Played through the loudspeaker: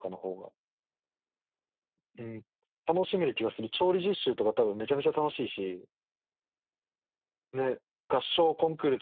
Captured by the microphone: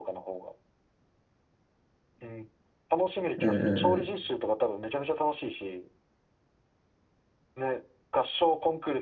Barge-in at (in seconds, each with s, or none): 3.4 s